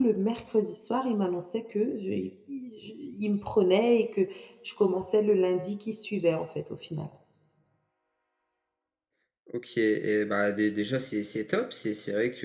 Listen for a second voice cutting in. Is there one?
No

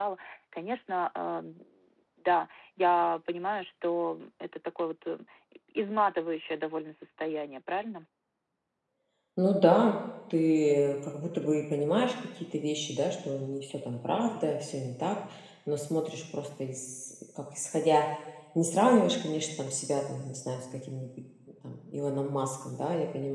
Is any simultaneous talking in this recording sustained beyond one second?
No

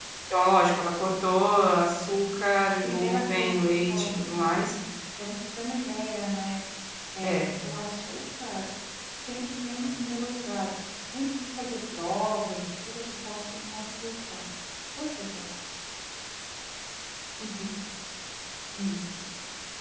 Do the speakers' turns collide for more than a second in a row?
Yes, from 2.8 s

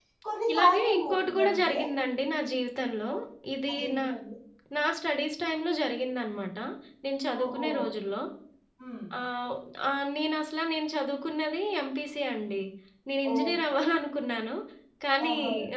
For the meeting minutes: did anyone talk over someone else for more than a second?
Yes, from 0.5 s

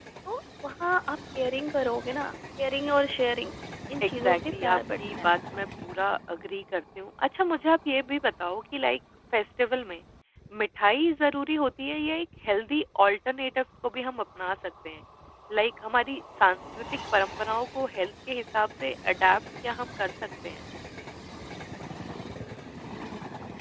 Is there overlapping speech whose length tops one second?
Yes, from 4.0 s

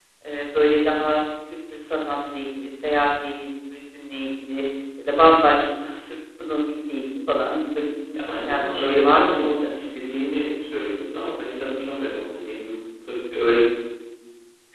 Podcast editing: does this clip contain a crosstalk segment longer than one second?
Yes, from 8.2 s

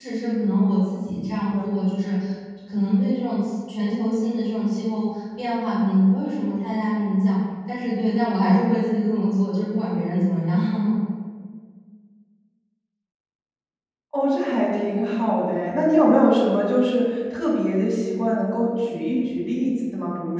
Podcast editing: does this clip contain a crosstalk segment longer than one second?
No

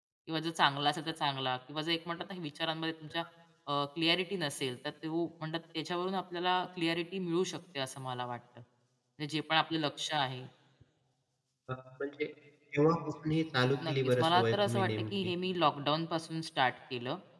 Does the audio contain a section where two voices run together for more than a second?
Yes, from 13.8 s

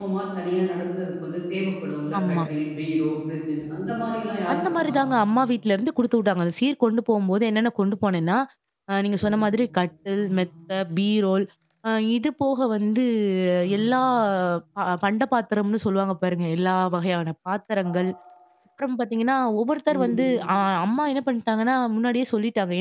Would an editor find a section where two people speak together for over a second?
No

